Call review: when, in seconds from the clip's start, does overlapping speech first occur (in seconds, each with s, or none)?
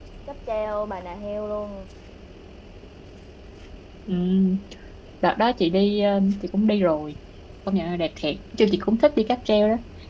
none